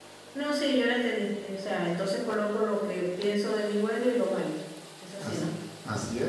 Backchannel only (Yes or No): No